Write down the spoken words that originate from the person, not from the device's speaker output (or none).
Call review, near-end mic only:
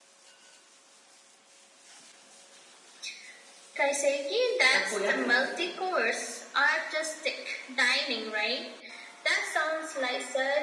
takoyaki,